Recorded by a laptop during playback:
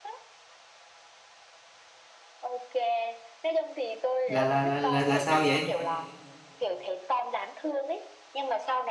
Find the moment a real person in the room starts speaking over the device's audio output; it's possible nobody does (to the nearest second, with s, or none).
4 s